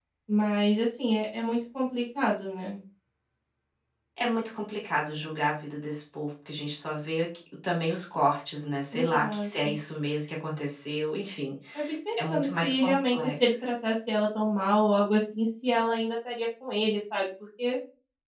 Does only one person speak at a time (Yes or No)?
No